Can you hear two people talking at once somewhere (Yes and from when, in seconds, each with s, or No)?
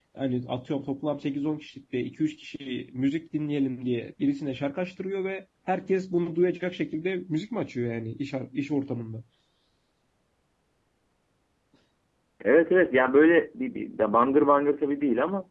No